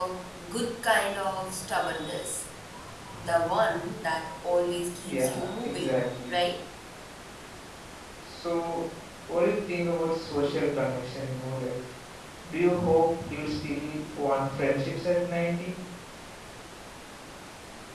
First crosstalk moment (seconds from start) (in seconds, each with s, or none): 5.0 s